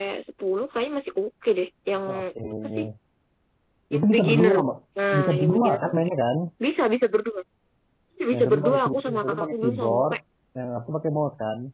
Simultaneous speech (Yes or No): Yes